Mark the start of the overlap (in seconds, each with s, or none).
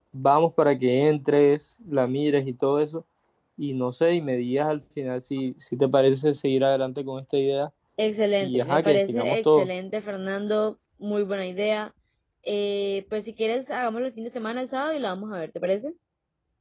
8.4 s